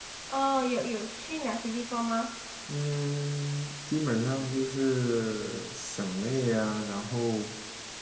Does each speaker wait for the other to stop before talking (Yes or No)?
Yes